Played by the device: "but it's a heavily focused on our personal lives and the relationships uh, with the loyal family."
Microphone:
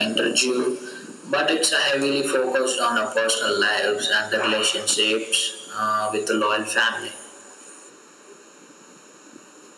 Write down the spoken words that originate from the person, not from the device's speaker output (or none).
none